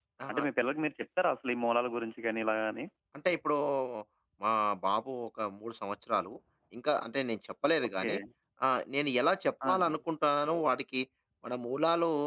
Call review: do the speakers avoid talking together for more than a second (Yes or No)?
Yes